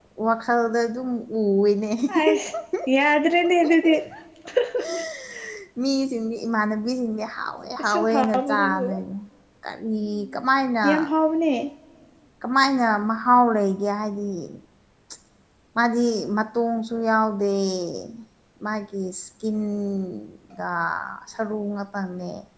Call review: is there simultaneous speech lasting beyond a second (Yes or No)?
Yes